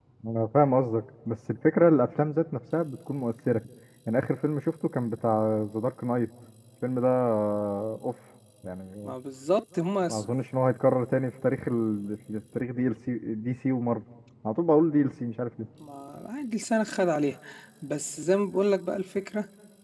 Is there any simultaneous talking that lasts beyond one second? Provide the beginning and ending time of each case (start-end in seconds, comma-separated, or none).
none